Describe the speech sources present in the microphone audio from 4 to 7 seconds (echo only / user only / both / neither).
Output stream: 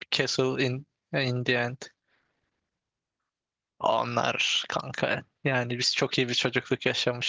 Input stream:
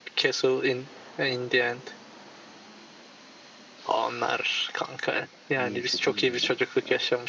both